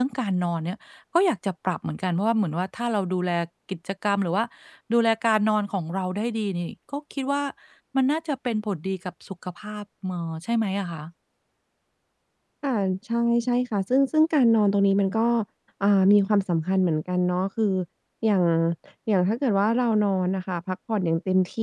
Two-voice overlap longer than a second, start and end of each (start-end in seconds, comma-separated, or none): none